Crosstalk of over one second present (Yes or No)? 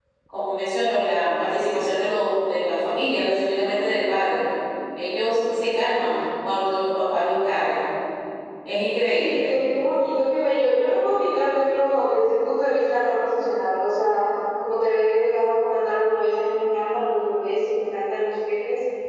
No